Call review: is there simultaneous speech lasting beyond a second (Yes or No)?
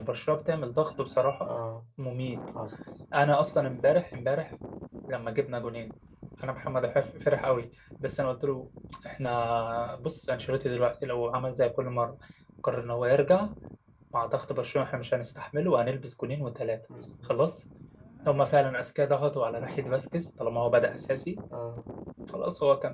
No